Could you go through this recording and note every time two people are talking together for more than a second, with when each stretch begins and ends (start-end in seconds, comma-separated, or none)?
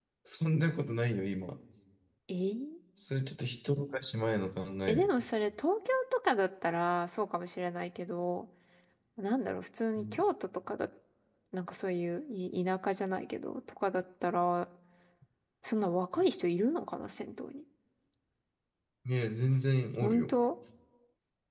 none